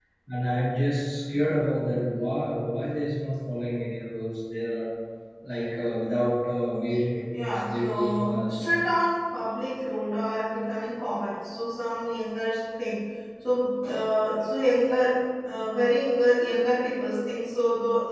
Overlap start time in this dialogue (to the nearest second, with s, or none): 7 s